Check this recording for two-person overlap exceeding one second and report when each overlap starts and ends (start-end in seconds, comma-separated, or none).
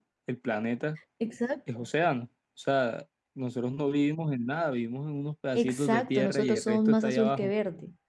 5.5-7.5